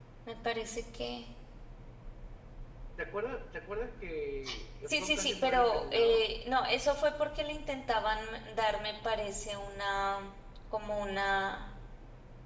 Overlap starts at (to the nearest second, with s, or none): 5 s